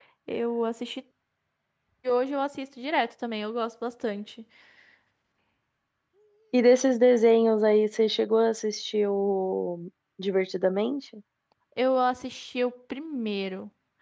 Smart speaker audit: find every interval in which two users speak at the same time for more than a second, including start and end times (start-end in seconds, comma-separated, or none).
none